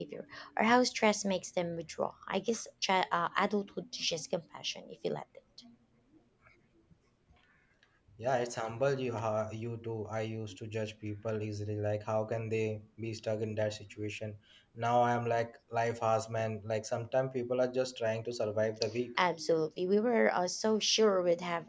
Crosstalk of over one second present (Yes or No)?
No